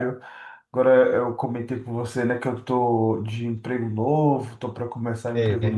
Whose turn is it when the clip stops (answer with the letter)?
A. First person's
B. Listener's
A